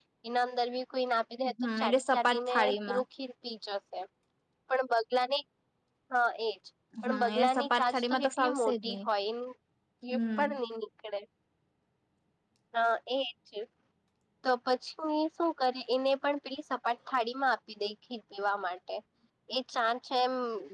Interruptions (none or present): present